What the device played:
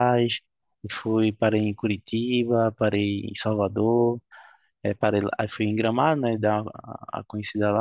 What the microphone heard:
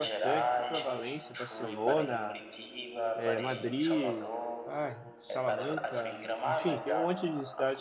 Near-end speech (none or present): present